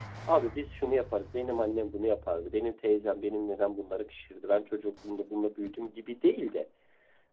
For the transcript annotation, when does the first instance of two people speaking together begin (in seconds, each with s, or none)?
none